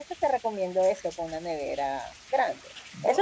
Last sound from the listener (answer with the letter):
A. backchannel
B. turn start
A